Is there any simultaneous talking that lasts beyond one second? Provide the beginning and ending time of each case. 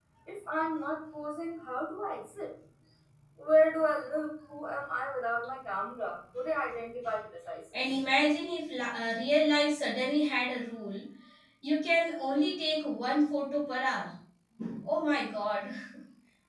none

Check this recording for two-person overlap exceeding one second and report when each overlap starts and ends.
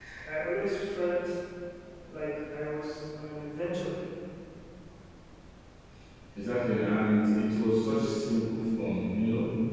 none

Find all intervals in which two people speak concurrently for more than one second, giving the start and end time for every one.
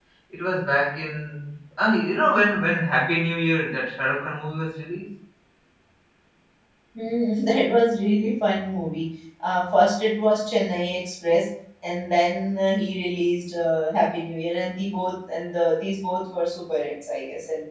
none

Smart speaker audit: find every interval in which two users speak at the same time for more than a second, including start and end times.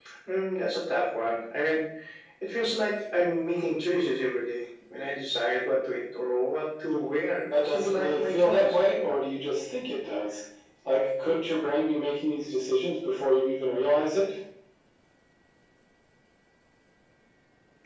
7.4-8.8

